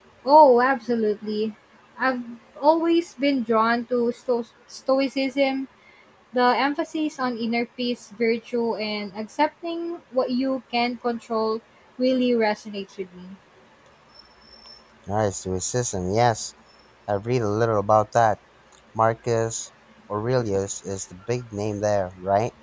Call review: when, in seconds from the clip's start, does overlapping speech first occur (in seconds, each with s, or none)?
none